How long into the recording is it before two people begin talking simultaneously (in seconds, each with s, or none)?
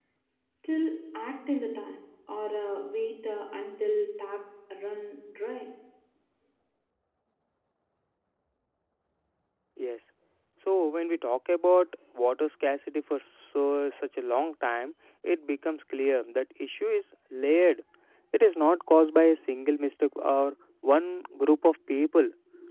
none